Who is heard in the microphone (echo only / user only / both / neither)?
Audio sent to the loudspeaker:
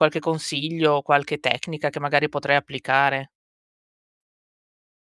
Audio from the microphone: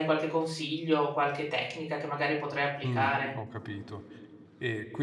both